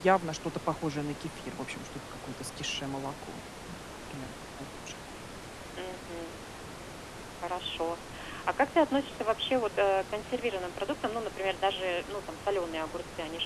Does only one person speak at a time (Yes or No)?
Yes